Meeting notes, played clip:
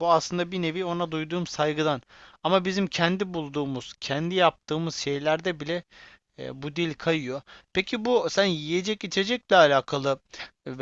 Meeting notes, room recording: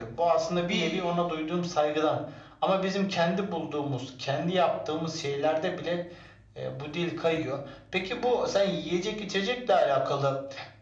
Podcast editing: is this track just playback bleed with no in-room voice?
No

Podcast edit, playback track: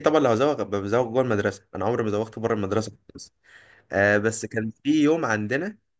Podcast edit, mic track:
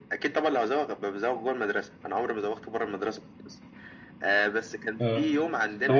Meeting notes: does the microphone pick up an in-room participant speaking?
Yes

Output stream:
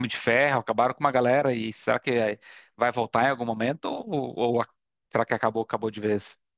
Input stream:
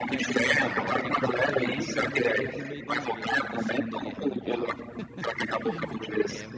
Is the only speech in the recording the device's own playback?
No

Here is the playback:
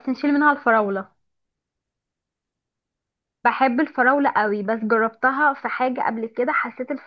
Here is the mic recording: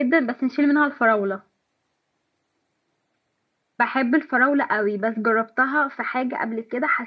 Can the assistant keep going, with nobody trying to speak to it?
Yes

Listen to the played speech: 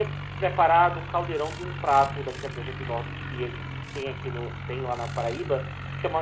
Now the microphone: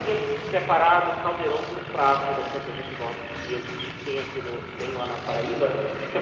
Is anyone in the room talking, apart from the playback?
No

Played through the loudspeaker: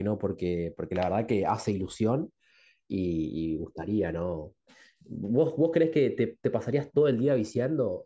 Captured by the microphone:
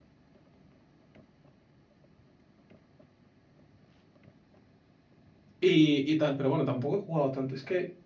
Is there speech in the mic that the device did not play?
Yes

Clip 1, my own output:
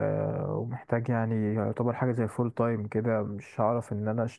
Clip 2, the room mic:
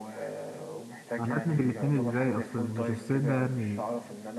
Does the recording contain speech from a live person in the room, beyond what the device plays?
Yes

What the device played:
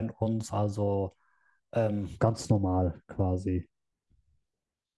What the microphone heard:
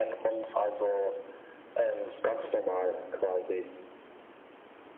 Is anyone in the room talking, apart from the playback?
No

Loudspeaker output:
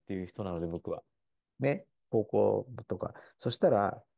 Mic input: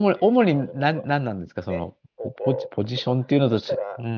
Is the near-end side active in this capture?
Yes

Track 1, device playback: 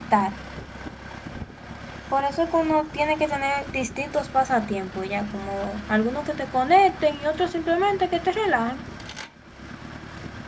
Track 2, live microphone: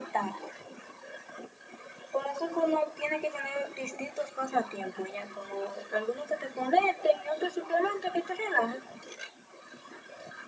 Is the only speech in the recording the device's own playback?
Yes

